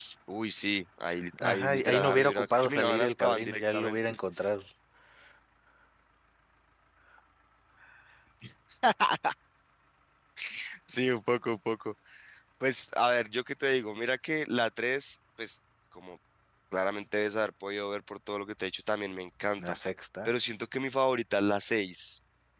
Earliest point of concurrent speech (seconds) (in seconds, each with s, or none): 1.3 s